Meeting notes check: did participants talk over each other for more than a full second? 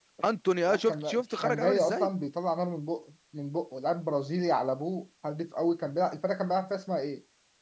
Yes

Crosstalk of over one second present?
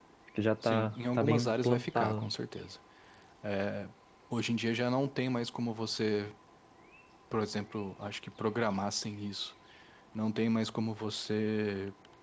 Yes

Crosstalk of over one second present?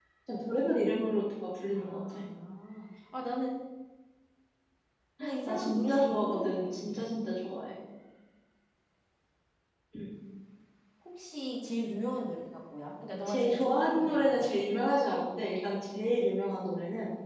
Yes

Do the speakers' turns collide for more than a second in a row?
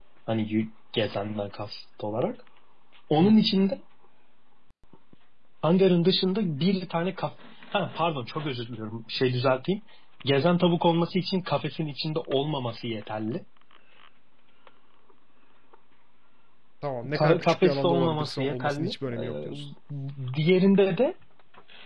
Yes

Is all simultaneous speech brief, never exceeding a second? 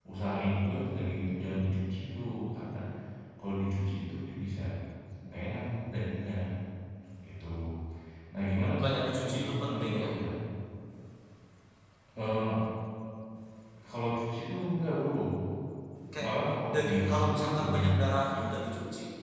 No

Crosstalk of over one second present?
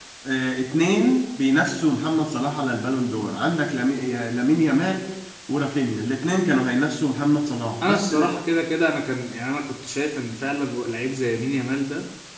No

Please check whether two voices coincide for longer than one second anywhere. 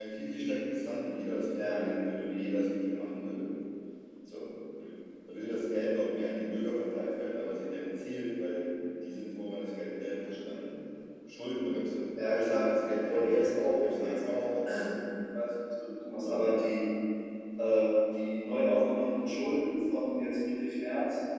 Yes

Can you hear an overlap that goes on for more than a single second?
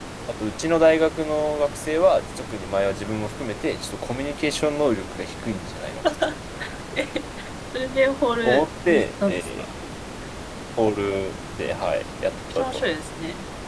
Yes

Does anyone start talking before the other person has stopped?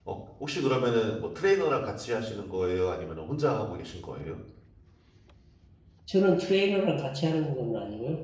No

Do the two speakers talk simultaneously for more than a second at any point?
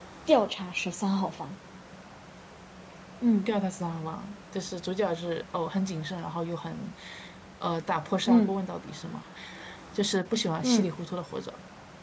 No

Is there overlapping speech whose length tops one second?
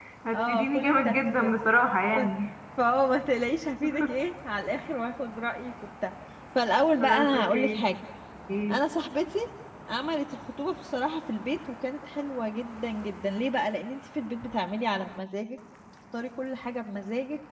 Yes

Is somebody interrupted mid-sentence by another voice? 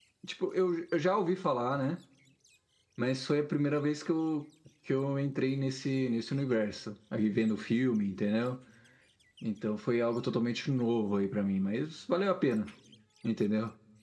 No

